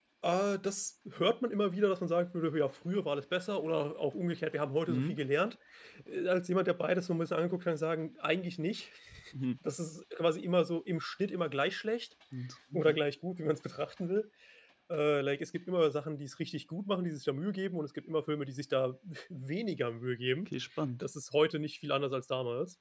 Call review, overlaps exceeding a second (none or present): none